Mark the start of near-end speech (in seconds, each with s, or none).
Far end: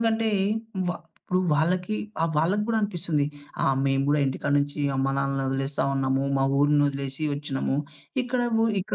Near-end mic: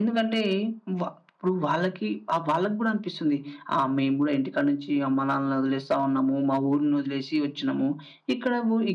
none